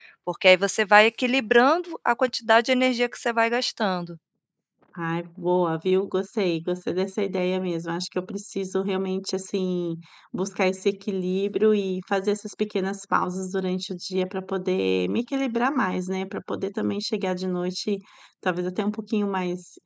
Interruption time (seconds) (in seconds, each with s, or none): none